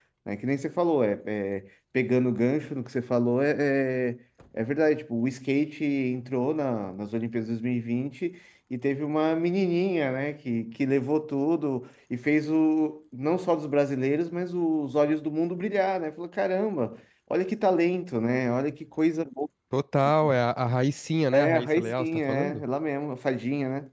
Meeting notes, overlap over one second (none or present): present